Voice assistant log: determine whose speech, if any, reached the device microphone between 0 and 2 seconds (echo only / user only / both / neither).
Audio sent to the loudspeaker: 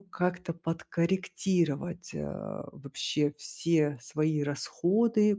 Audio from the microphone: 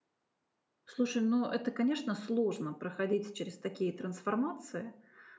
user only